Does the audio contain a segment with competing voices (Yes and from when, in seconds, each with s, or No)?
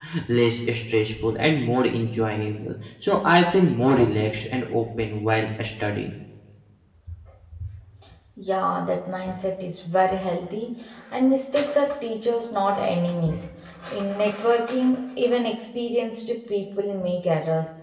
No